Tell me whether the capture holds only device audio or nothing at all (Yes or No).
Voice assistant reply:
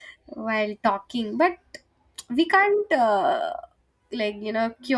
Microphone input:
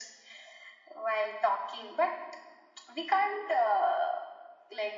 Yes